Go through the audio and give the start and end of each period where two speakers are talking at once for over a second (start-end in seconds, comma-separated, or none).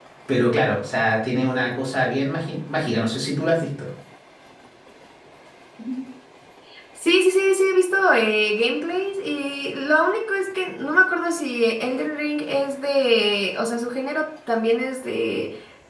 none